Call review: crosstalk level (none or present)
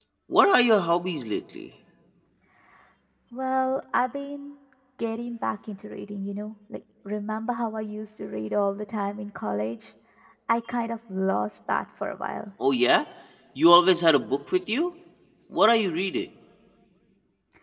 none